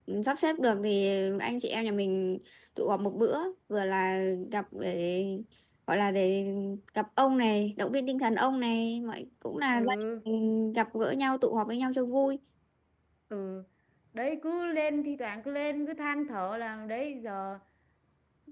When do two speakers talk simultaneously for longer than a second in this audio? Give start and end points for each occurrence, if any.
none

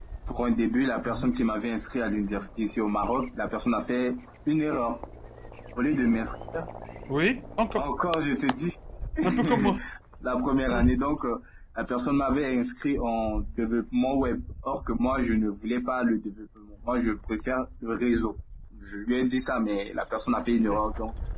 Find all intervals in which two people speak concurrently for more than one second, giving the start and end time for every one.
none

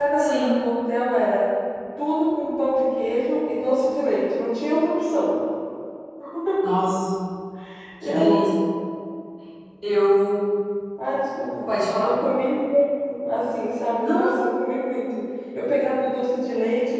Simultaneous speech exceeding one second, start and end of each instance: none

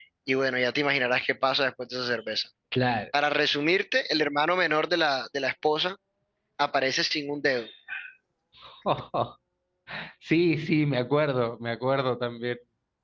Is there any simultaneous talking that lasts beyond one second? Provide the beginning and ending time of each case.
none

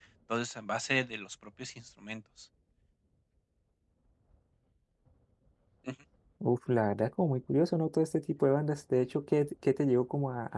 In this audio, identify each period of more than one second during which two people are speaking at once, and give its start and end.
none

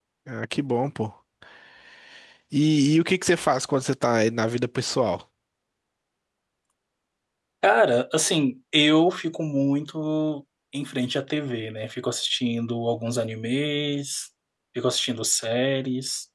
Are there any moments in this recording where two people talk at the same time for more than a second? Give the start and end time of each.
none

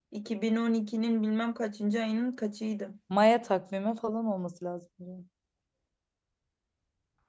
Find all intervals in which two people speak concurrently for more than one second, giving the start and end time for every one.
none

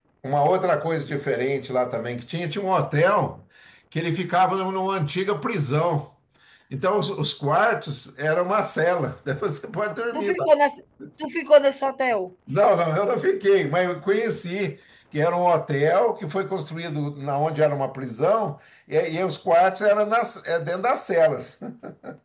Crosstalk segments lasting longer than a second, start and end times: none

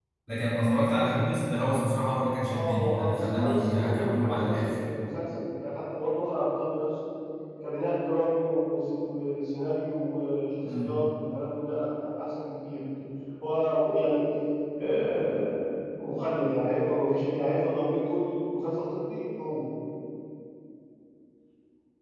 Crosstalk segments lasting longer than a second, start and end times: 2.5-4.8

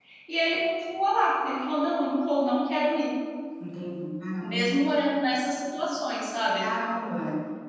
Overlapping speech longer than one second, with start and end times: none

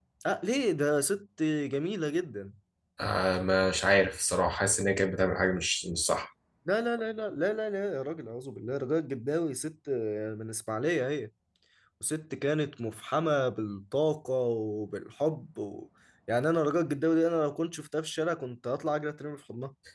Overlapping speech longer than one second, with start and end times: none

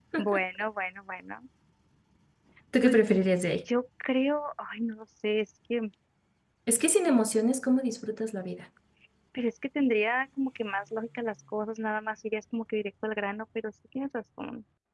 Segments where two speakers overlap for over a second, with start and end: none

